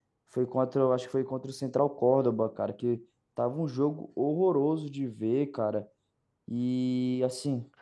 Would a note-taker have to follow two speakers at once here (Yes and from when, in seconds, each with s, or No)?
No